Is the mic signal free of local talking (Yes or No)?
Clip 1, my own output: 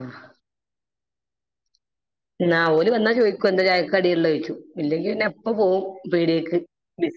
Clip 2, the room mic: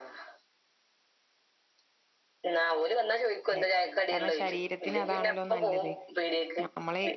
No